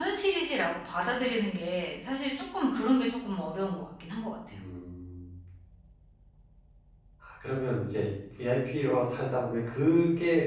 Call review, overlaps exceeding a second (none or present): none